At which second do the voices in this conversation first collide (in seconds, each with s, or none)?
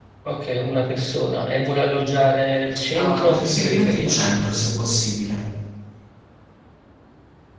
2.8 s